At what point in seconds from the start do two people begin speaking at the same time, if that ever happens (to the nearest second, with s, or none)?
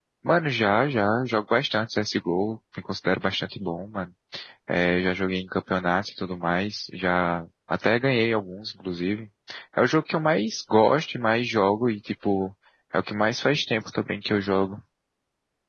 none